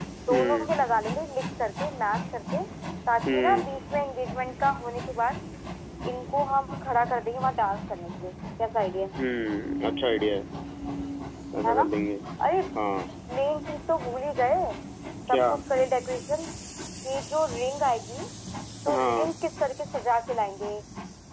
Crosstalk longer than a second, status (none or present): none